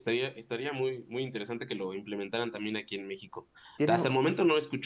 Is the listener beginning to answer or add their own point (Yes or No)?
No